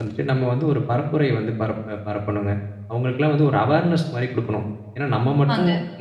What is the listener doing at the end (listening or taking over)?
listening